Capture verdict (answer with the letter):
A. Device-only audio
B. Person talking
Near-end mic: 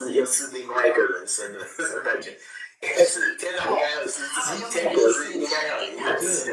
B